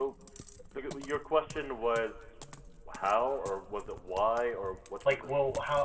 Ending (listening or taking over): taking over